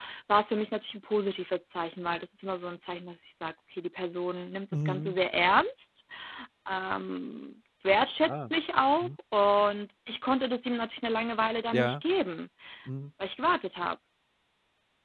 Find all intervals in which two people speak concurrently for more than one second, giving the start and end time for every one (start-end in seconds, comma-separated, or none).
none